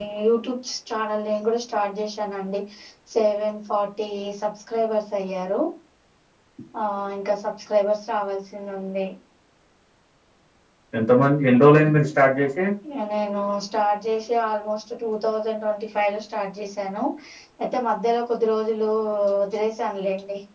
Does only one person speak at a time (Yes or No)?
Yes